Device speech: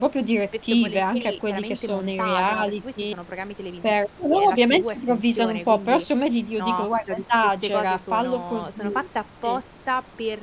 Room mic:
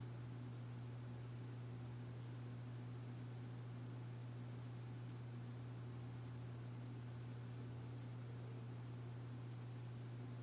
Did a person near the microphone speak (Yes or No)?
No